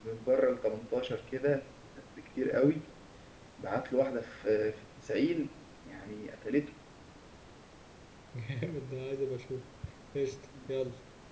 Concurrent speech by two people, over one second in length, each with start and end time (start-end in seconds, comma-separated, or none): none